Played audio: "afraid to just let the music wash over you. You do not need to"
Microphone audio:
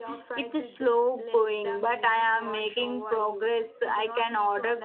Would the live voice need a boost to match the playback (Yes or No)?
No